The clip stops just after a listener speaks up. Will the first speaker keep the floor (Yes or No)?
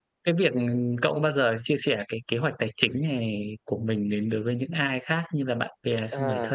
No